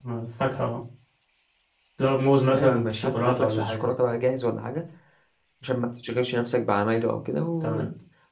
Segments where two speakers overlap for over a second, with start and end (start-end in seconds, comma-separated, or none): 2.5-3.9